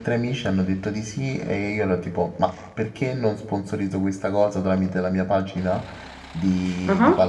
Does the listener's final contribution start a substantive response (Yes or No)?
No